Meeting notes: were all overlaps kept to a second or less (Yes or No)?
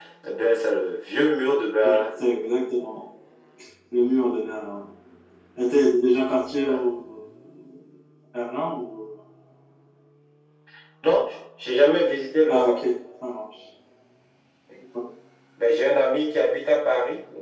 Yes